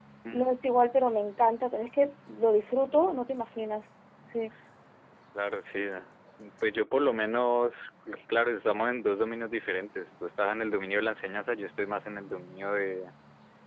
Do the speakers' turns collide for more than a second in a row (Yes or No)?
No